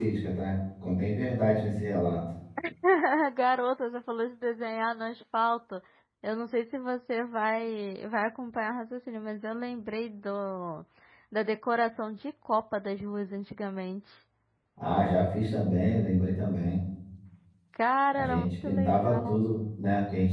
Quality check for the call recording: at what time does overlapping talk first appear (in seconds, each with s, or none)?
18.1 s